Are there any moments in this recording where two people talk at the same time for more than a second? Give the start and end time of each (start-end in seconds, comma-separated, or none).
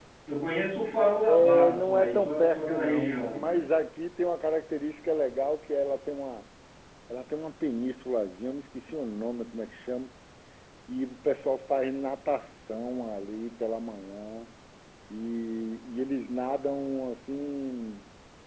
1.3-3.7